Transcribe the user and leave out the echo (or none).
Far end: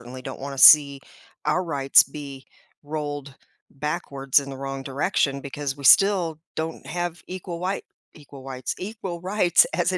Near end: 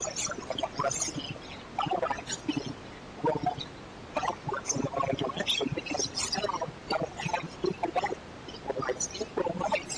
none